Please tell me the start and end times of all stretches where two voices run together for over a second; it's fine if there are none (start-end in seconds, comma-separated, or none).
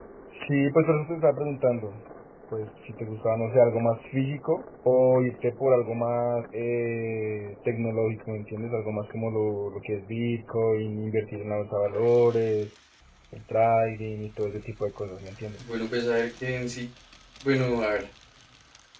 none